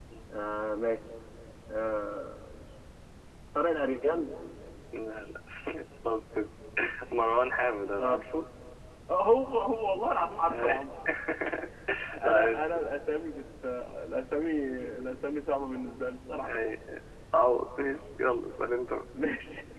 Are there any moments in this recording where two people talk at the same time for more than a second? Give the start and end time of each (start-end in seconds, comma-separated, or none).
none